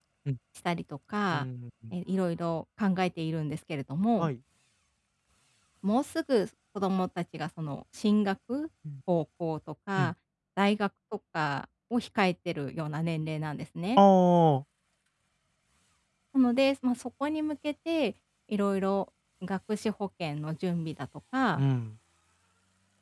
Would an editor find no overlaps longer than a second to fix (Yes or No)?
Yes